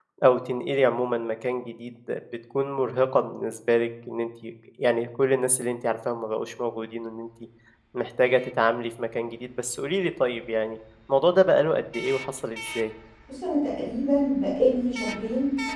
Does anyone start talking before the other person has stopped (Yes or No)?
No